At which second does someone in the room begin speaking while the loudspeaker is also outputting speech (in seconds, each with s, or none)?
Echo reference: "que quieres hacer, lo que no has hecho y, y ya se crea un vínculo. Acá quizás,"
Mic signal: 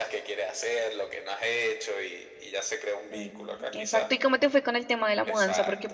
3.1 s